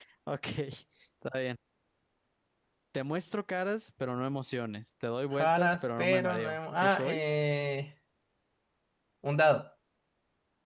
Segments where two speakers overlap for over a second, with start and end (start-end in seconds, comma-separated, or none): 5.3-7.2